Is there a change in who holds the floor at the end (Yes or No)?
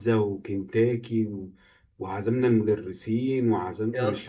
No